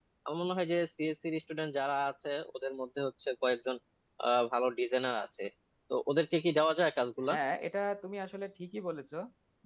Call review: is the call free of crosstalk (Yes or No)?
Yes